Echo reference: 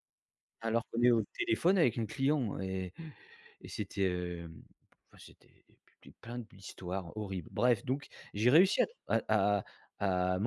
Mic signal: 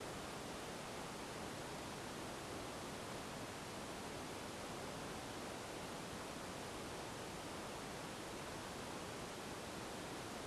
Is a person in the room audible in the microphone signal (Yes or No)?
No